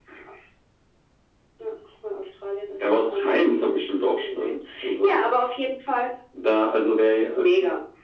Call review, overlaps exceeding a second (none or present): present